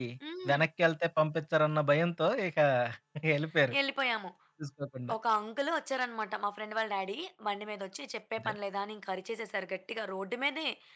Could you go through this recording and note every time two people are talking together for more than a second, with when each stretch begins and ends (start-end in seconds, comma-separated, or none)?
none